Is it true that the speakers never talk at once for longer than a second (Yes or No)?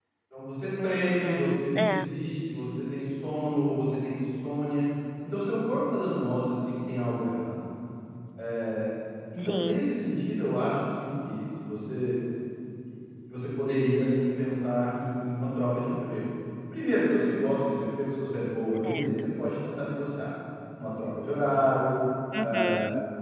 No